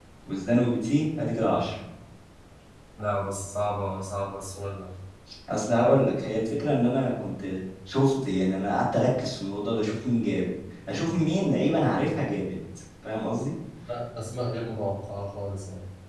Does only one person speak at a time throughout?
Yes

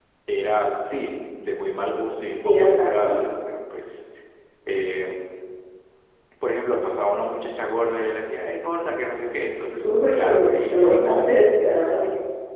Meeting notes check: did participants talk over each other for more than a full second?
Yes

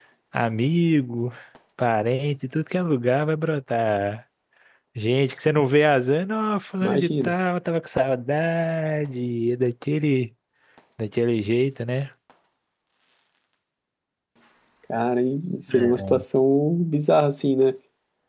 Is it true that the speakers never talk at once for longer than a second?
Yes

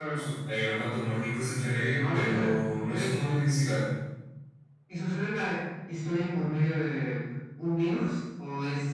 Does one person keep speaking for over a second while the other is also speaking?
Yes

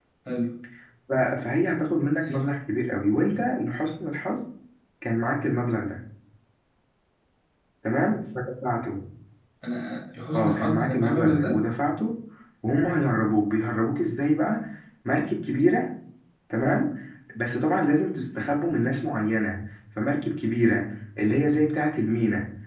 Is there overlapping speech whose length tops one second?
Yes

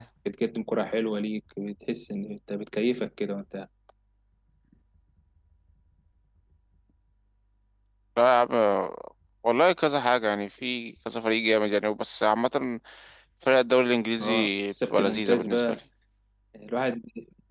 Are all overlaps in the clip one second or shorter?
No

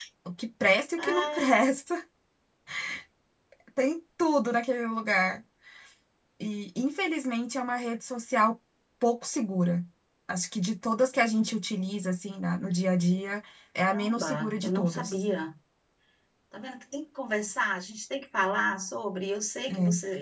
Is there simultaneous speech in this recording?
Yes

